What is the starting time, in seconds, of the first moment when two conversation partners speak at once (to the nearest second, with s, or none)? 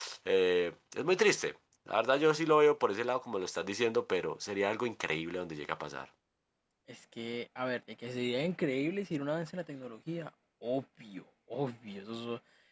none